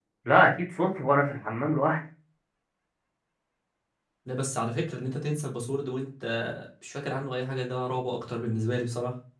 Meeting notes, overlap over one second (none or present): none